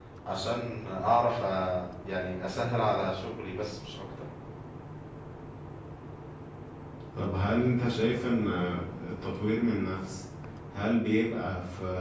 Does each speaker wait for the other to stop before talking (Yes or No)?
Yes